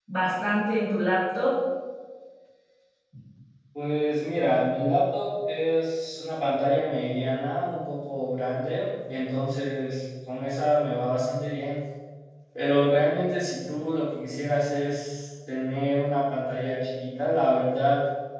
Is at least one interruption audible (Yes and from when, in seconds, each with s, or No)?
No